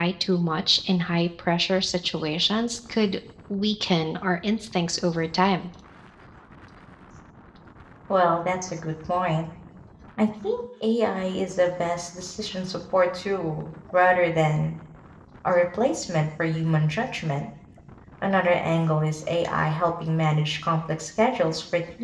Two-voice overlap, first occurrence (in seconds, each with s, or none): none